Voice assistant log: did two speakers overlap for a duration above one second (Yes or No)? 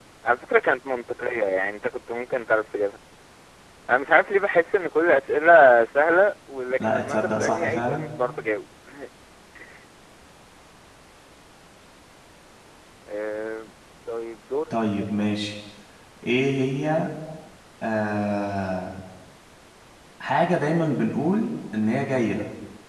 Yes